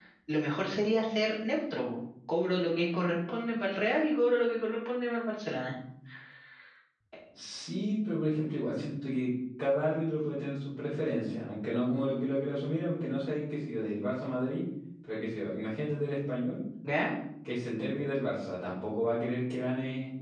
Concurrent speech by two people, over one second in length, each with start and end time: none

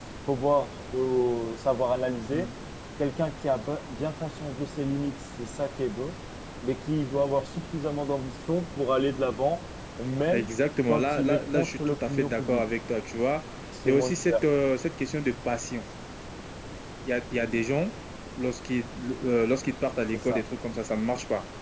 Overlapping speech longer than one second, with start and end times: 10.9-12.7

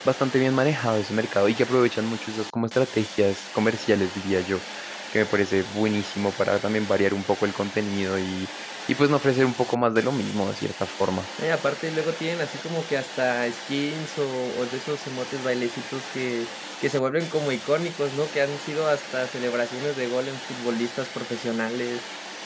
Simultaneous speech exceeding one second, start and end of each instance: none

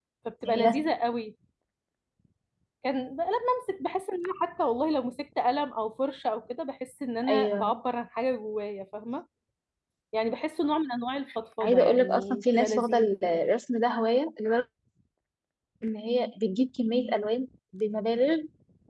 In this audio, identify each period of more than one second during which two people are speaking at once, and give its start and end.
11.6-13.1

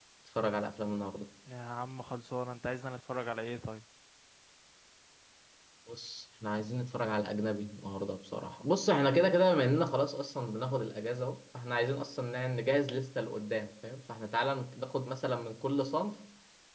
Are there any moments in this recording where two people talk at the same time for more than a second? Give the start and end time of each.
none

